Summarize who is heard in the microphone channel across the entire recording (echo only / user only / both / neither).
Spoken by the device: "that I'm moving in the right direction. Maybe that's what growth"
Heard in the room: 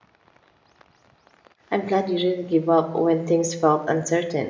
user only